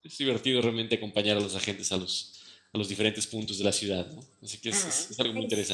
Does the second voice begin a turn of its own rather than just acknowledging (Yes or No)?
Yes